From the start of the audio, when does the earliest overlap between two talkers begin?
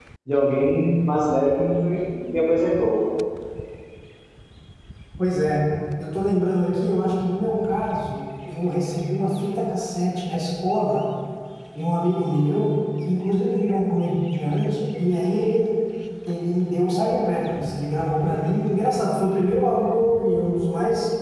none

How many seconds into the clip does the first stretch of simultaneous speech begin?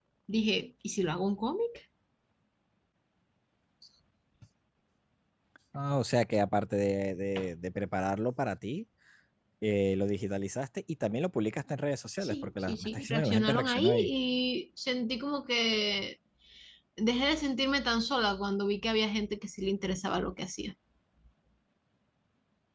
12.2 s

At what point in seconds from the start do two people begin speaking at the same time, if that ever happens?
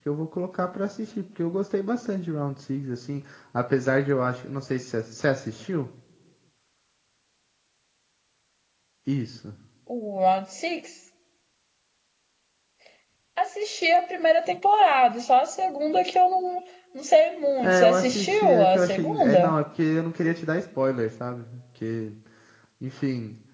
17.6 s

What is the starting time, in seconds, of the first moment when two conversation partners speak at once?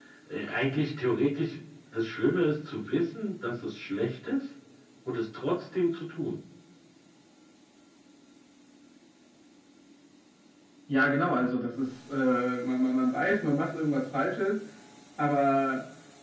none

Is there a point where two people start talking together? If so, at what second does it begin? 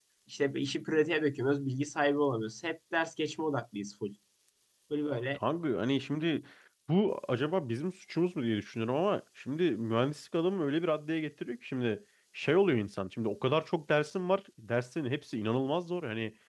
none

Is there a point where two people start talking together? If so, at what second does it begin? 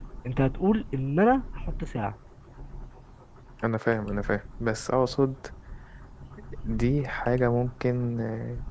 none

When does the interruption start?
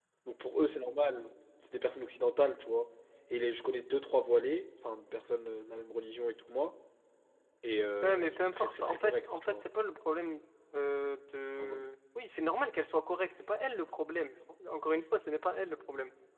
8.0 s

